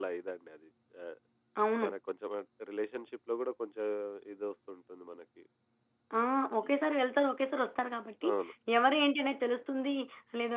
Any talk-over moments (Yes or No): No